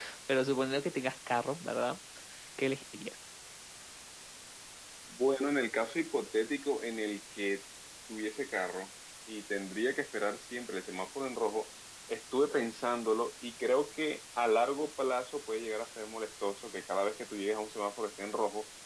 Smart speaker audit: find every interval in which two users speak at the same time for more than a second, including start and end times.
none

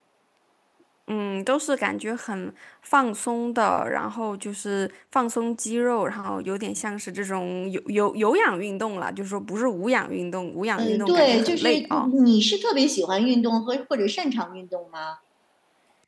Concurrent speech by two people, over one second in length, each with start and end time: 10.8-12.1

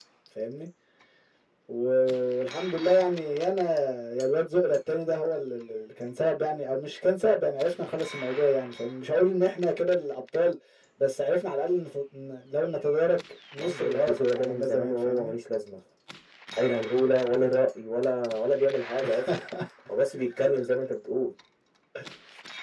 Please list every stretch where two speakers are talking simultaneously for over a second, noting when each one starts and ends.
13.6-15.3

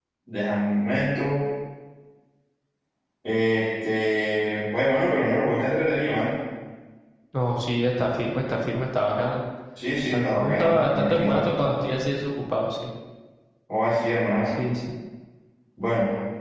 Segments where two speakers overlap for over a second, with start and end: 10.1-11.5

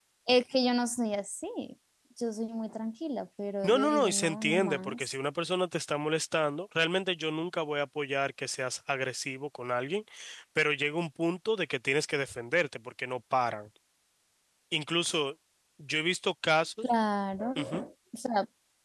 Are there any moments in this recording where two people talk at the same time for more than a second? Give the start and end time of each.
3.6-5.2

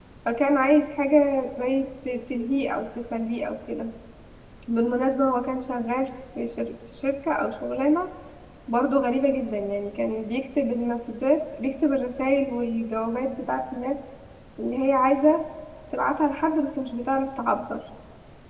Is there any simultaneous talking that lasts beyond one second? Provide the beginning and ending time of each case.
none

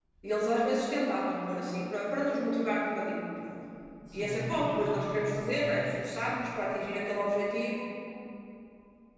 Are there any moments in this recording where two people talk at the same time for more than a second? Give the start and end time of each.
4.1-5.8

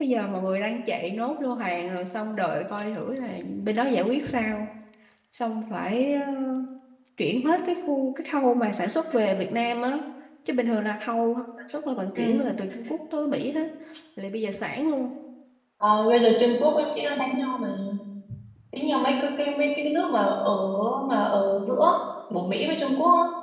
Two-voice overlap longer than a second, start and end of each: none

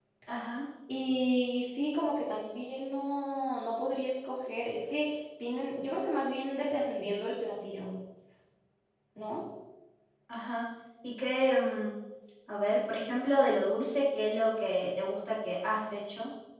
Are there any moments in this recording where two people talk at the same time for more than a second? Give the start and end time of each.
none

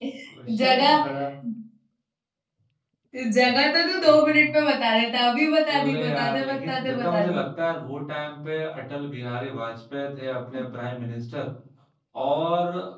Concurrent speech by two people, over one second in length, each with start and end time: 5.7-7.4

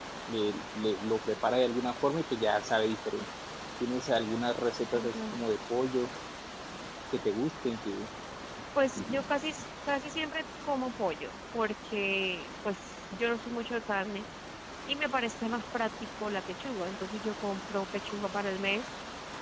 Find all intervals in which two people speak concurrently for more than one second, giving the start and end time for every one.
none

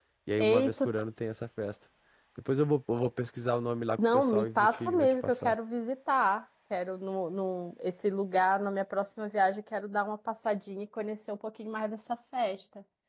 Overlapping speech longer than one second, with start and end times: 4.1-5.5

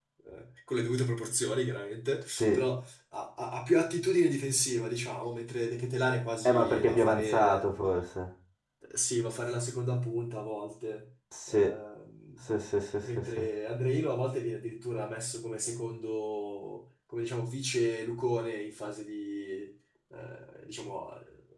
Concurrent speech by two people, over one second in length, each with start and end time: 6.4-7.7

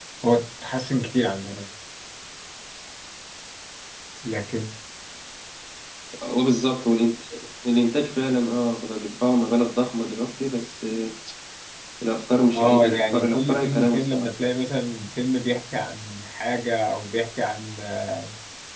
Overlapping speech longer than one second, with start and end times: 12.5-14.3

